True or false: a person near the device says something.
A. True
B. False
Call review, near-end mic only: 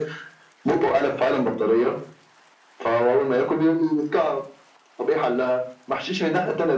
B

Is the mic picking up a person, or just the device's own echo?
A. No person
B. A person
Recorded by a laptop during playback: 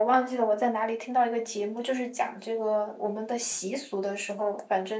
A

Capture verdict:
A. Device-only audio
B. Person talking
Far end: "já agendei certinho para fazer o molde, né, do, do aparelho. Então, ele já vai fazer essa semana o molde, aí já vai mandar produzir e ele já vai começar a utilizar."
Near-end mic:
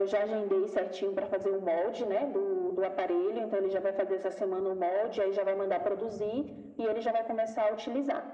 A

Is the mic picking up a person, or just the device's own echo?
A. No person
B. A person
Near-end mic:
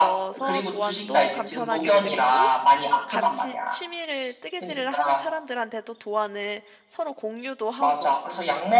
B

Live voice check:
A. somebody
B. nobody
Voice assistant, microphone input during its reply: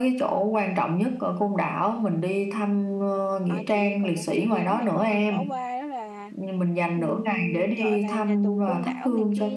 A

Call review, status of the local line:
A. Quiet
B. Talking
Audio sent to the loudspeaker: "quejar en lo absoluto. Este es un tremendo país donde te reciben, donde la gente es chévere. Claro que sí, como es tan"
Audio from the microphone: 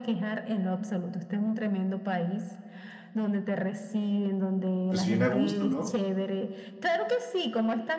B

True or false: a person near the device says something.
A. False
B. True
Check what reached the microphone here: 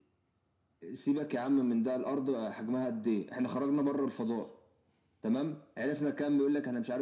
A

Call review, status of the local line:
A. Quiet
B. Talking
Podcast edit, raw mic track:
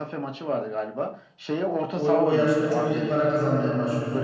B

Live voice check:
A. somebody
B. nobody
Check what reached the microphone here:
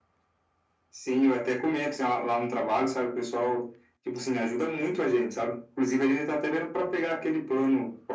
B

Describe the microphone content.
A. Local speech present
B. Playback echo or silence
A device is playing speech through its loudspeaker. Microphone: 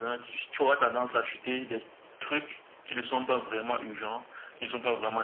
B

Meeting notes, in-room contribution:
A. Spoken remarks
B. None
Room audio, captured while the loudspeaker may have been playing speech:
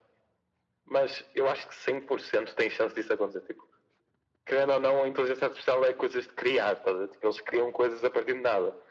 B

